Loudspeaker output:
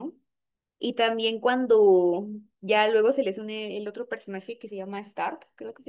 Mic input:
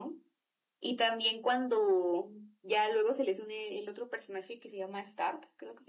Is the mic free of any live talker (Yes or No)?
Yes